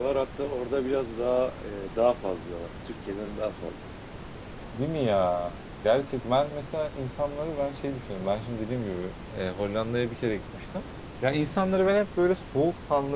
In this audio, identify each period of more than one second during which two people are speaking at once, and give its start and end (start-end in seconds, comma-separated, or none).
none